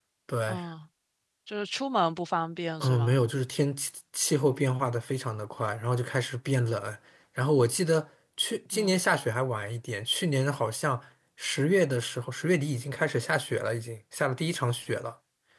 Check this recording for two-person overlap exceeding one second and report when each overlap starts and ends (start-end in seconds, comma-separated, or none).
none